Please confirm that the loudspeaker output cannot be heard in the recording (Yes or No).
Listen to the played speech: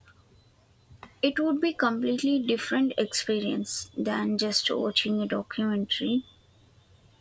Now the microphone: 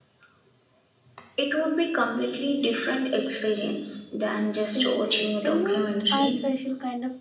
No